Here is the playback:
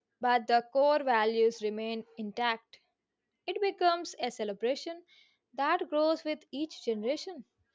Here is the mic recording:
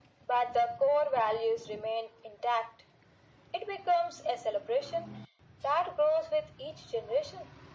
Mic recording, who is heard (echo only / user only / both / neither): echo only